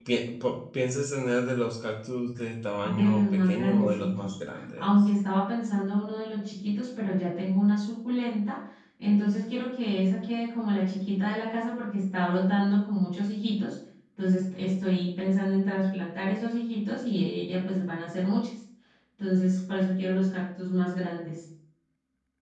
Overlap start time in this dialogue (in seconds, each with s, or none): 2.8 s